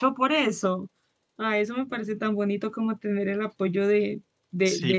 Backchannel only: No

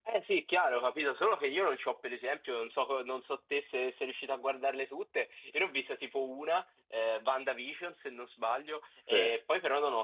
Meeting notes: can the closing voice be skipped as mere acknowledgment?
Yes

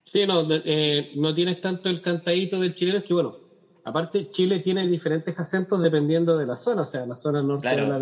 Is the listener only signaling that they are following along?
Yes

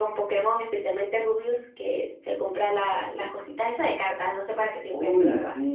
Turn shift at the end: Yes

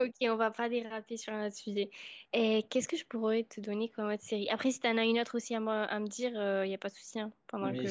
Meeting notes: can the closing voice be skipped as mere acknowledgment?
No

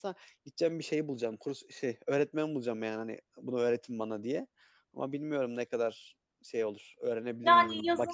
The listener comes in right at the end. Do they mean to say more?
Yes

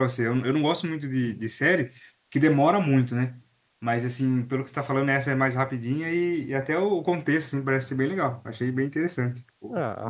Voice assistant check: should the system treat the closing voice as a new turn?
Yes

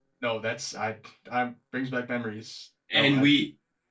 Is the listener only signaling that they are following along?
No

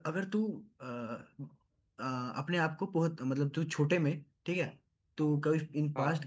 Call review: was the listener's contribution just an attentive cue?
Yes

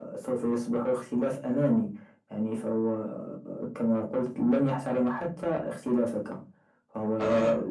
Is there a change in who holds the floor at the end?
No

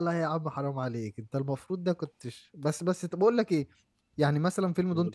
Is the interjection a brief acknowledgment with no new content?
Yes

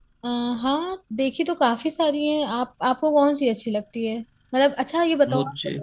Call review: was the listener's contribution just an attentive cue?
Yes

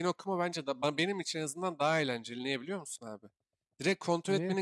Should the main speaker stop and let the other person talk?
No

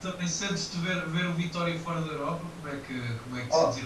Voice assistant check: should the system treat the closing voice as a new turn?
Yes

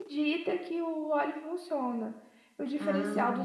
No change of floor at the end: Yes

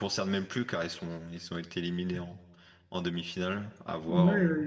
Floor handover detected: Yes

